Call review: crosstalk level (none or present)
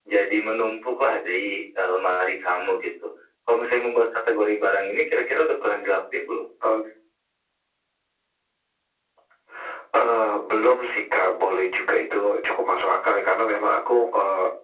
none